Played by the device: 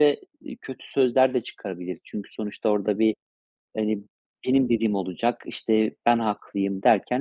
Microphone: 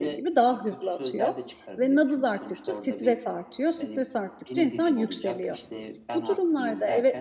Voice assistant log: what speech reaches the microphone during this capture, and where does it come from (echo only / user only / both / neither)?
both